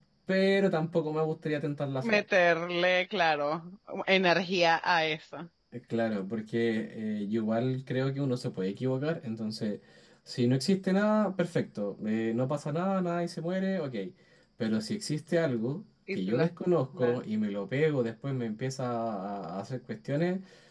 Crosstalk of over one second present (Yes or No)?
No